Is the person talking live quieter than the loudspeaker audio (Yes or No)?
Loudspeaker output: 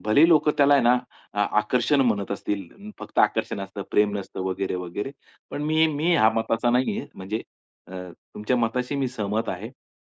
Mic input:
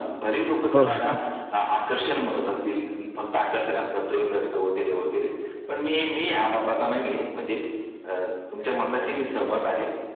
No